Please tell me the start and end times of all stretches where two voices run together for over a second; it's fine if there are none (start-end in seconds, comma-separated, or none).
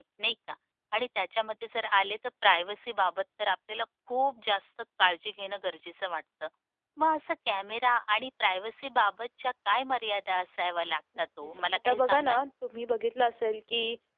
11.2-12.4